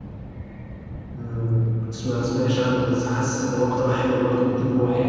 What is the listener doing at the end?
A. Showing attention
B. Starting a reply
B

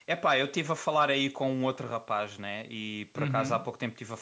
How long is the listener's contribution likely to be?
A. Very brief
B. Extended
A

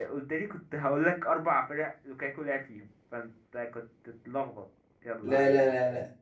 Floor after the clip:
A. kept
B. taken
B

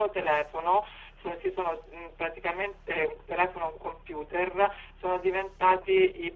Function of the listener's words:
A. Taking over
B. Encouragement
B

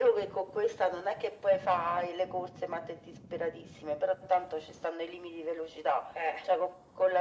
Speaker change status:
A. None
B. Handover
A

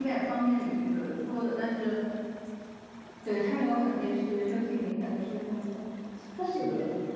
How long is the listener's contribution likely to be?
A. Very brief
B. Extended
A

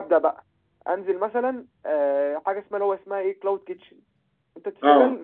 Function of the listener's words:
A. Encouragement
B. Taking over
A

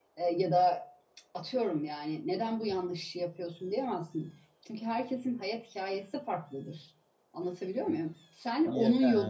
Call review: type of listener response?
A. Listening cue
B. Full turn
A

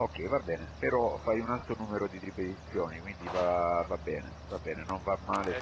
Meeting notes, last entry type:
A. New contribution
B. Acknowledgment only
B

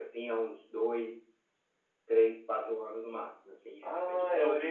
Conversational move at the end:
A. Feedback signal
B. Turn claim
B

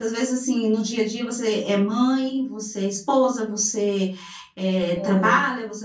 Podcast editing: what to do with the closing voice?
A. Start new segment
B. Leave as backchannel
B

